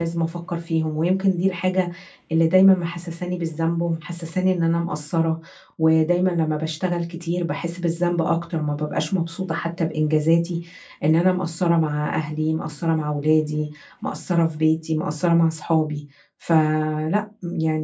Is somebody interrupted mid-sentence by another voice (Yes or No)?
No